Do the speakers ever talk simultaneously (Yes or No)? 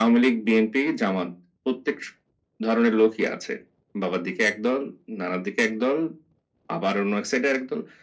No